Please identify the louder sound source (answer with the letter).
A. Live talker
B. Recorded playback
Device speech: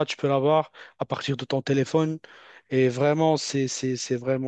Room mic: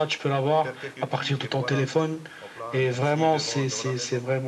B